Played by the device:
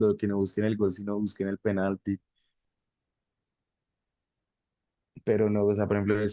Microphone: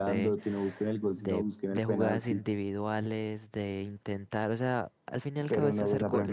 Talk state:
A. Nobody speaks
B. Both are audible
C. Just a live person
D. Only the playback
B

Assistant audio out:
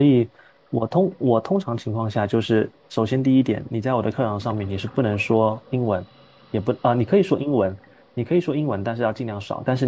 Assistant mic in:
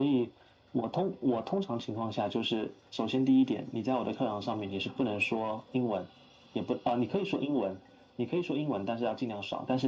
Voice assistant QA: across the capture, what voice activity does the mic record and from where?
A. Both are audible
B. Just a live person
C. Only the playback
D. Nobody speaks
C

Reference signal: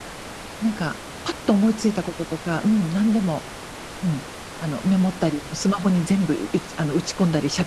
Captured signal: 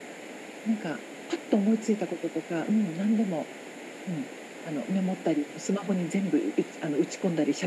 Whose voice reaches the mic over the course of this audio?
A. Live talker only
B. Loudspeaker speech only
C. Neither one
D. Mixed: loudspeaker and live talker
B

